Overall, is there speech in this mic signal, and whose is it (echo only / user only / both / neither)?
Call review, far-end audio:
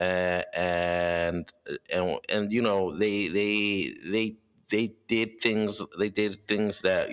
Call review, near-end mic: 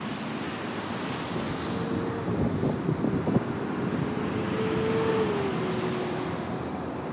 neither